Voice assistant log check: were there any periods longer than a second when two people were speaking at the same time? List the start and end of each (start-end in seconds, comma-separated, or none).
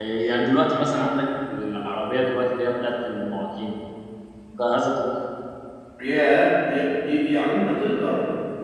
none